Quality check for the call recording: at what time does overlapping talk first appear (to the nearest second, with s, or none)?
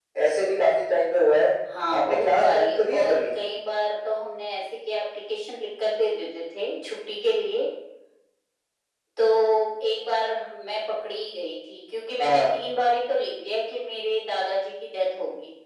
2 s